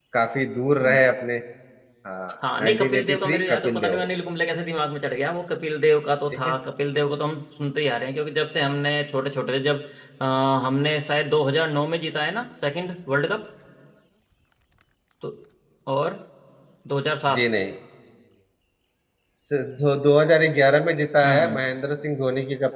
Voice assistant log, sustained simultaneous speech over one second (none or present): present